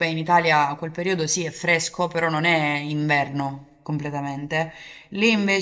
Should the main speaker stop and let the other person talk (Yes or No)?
No